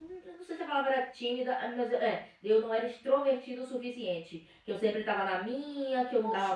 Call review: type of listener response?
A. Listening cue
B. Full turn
B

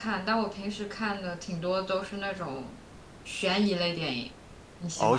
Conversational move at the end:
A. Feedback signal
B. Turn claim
B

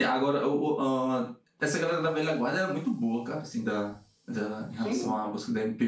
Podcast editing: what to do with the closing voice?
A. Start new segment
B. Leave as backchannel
B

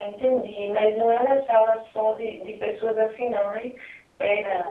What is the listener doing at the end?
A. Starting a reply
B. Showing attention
B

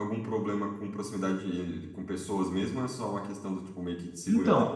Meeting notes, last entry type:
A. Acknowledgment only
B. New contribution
B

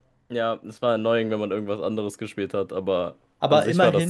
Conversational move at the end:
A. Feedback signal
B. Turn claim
B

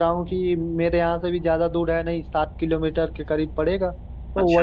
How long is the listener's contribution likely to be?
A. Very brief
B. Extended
A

